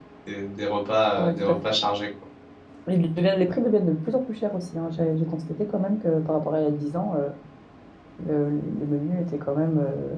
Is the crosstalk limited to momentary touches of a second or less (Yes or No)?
Yes